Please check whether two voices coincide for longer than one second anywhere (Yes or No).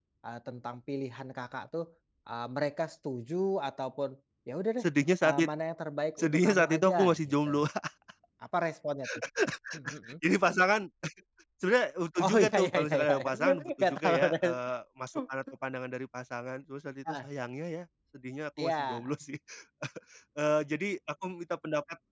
Yes